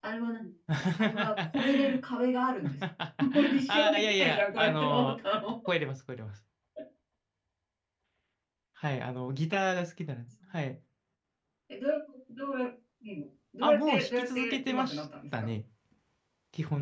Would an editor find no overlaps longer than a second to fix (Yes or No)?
No